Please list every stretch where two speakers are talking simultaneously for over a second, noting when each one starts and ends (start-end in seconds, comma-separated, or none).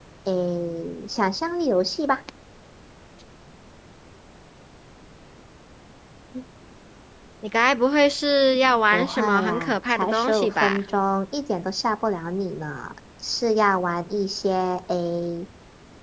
8.9-10.8